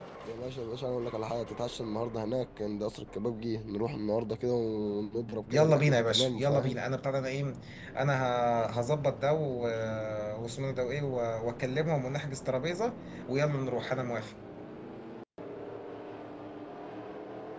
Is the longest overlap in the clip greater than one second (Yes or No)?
Yes